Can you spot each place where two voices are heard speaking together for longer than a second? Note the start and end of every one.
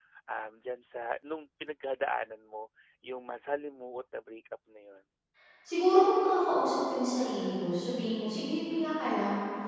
none

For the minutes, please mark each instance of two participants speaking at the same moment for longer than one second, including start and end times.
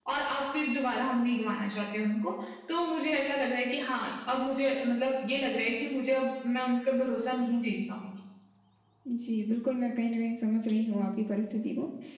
none

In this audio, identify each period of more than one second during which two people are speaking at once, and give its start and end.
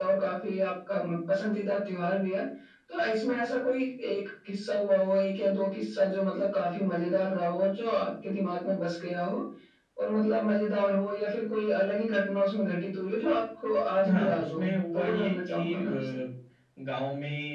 14.1-16.1

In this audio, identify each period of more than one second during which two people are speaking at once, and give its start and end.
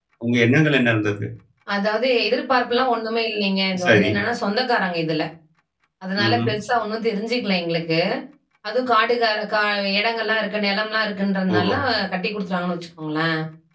none

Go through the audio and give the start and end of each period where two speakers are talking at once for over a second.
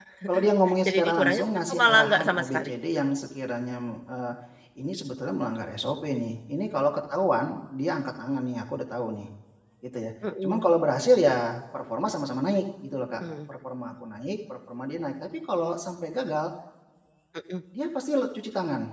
0.8-2.7

